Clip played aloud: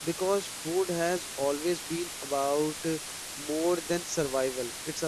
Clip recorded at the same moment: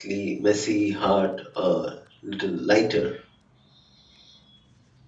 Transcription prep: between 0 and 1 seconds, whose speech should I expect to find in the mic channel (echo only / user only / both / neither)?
user only